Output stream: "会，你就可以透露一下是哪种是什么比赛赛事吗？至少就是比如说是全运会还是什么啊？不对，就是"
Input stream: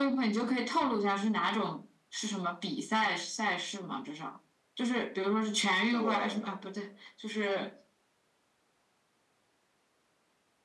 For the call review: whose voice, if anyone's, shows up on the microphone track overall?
both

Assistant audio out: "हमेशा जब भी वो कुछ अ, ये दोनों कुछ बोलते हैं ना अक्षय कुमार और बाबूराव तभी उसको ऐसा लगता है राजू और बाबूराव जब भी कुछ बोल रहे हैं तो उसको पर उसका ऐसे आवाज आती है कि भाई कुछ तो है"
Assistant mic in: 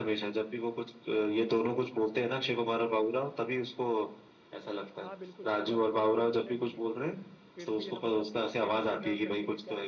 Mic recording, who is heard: both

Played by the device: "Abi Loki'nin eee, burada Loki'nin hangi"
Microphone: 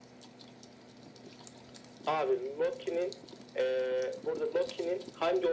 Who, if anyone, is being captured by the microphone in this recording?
echo only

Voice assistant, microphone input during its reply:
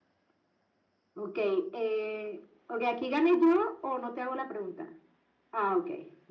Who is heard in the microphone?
echo only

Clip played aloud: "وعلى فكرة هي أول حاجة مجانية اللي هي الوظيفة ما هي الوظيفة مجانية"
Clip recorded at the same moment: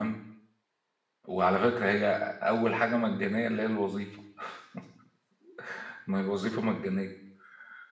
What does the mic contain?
echo only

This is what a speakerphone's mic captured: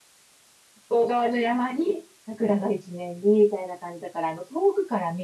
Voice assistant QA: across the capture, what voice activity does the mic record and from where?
user only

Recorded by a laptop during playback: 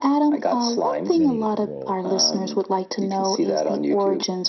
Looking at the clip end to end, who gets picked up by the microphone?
both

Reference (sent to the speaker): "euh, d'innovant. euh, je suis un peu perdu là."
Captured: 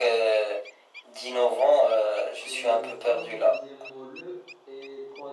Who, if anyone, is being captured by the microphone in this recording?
both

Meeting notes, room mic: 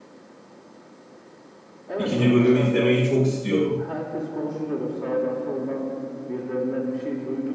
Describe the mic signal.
both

